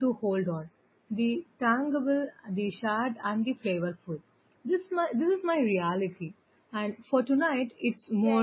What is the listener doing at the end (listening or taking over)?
taking over